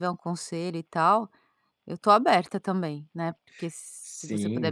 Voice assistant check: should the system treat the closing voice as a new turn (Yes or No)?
Yes